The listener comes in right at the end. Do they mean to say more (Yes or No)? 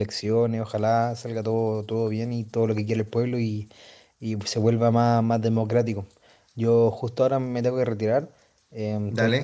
No